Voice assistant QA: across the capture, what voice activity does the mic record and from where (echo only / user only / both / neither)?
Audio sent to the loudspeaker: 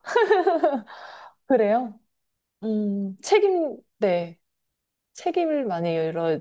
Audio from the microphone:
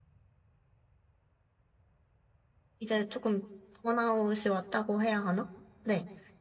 user only